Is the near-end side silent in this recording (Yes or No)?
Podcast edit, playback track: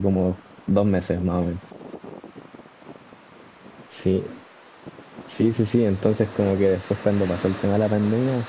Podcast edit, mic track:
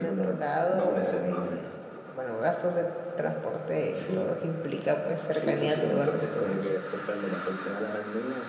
No